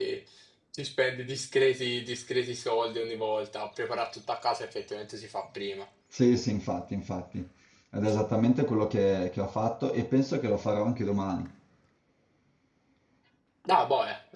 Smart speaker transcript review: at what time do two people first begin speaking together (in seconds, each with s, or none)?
none